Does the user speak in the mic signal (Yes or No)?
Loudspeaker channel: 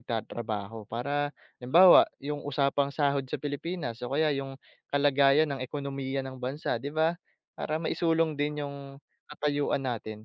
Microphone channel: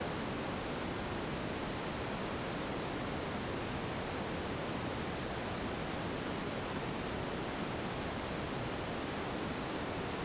No